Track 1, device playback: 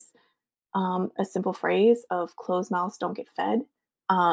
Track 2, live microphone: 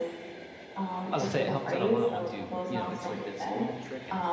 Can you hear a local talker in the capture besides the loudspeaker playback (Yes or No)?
Yes